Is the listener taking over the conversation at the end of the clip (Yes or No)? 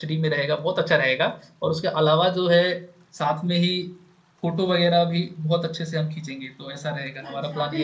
Yes